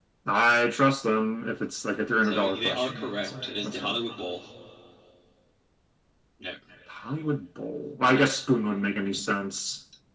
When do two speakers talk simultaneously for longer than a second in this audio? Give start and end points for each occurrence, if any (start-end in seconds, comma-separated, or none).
2.2-4.0